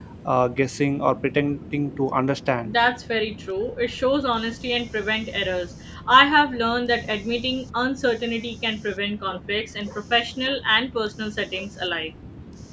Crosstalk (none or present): none